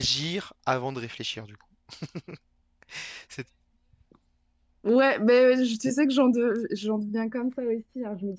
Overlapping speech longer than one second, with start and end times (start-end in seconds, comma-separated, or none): none